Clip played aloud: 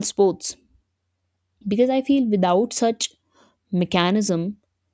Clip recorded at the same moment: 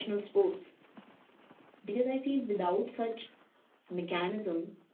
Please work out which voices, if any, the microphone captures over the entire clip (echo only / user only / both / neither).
echo only